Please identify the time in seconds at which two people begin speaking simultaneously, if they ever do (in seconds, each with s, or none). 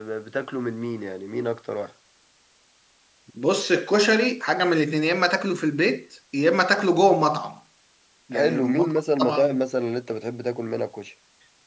8.3 s